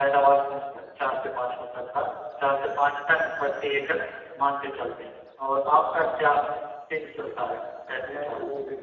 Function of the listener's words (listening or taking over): taking over